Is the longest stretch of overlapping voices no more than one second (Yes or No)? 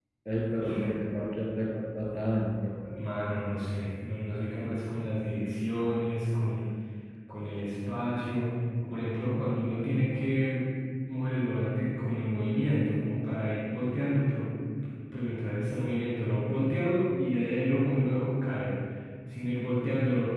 Yes